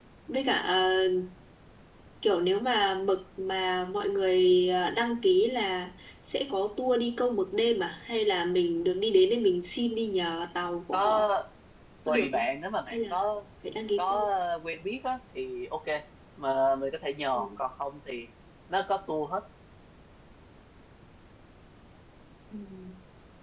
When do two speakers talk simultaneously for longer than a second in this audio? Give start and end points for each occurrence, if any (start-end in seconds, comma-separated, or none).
none